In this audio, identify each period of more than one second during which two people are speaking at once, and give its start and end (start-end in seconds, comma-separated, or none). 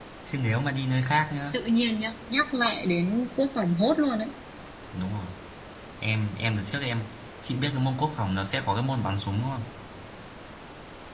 none